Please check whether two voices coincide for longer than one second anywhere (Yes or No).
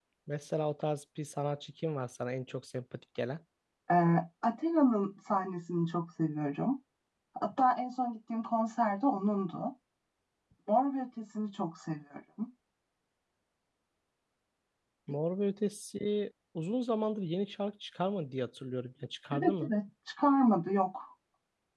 No